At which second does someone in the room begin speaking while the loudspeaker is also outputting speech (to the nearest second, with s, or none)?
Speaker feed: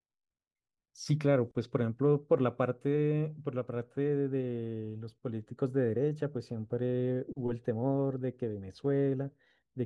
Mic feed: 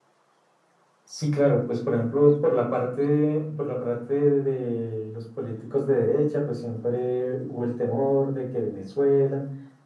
none